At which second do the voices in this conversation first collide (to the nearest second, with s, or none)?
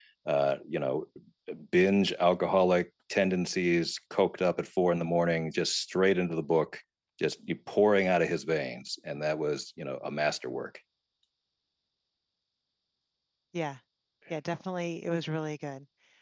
none